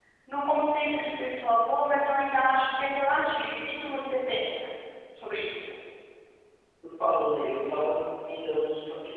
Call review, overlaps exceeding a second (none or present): none